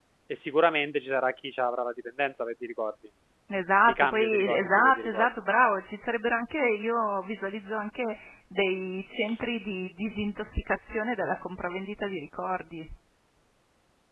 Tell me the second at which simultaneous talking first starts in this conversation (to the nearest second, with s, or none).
4 s